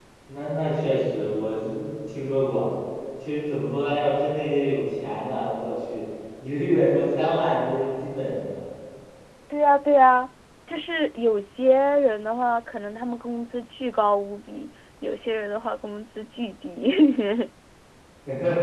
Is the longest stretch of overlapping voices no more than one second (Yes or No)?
Yes